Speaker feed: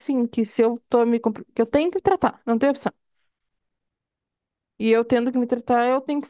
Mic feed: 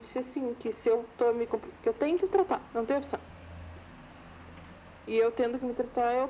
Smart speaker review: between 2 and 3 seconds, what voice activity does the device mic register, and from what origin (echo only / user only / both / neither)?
echo only